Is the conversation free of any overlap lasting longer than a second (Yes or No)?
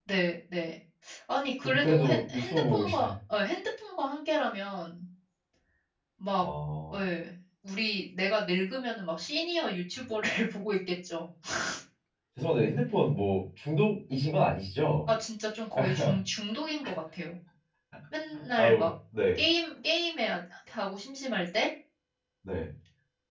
No